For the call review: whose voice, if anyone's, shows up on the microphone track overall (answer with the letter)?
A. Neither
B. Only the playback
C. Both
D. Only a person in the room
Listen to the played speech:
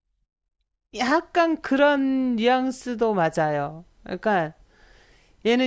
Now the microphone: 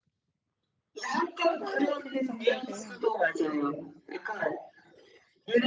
C